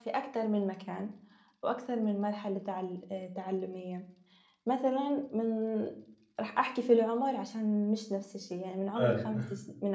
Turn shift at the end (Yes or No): No